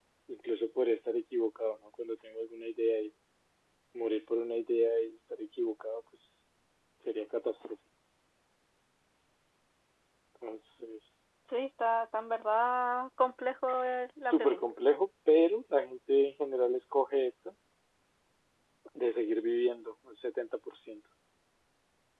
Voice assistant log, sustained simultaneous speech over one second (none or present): none